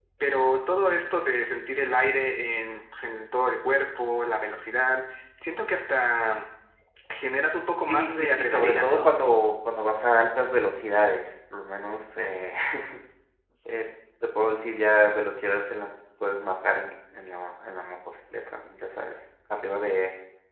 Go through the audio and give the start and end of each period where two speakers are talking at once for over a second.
7.8-9.1

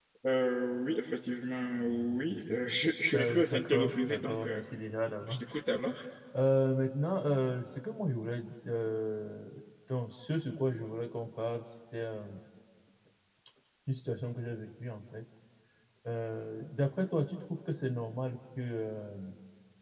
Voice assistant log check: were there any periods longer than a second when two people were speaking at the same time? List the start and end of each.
3.1-4.6

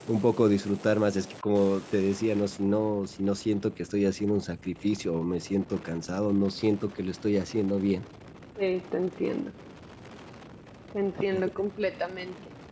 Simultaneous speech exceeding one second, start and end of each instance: none

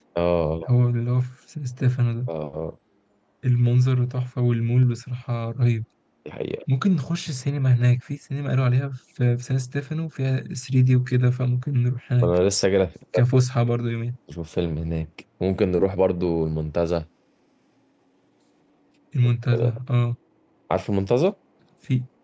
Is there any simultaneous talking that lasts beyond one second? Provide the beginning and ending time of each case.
none

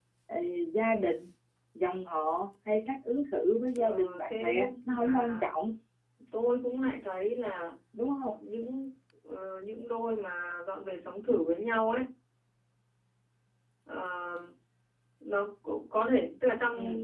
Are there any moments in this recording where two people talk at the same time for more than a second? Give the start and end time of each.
3.8-5.5

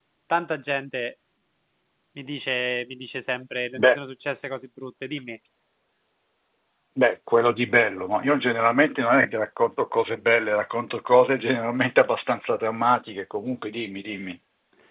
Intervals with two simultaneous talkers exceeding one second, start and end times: none

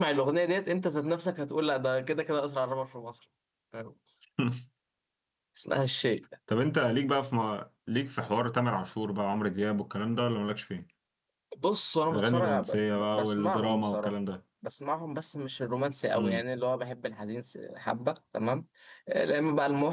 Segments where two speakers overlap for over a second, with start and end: 12.1-14.1

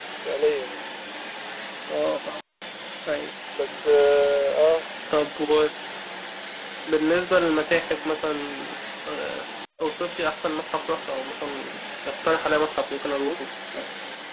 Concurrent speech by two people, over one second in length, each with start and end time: none

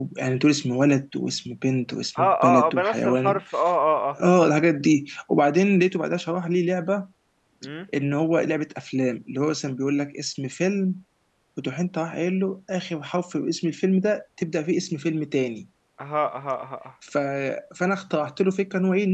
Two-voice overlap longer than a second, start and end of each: 2.2-3.4

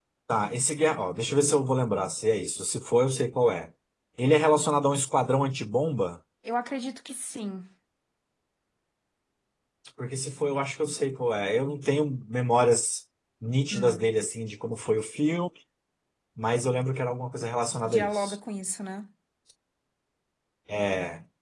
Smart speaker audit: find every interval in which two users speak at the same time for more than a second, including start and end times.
none

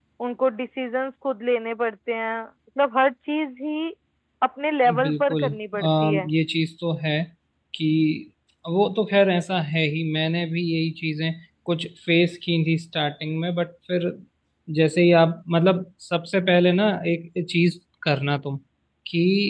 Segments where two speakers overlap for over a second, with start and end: 5.0-6.3

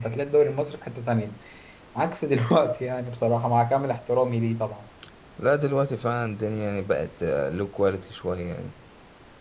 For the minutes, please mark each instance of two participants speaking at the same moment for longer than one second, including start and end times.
none

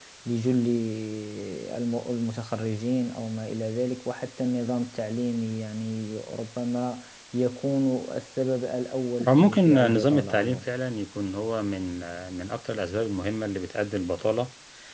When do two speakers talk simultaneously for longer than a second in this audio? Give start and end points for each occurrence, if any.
9.3-10.7

